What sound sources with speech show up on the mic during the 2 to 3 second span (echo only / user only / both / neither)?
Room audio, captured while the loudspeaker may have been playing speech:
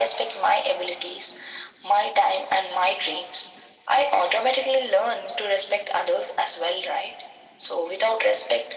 echo only